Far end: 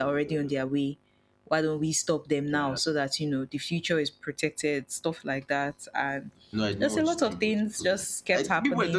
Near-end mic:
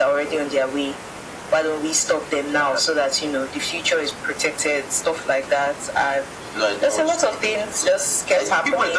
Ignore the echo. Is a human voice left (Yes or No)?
No